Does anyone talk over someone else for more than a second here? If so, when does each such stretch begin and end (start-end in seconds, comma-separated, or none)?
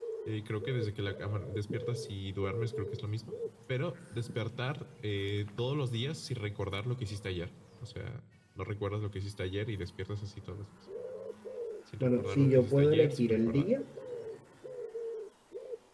12.0-13.7